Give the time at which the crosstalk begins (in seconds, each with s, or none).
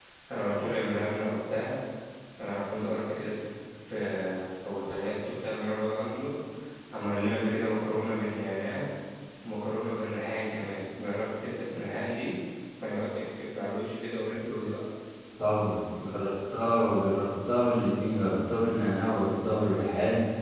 none